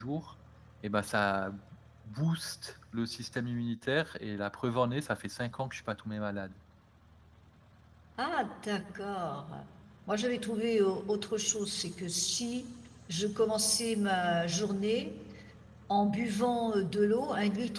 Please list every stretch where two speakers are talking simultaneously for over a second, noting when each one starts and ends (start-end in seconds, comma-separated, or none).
none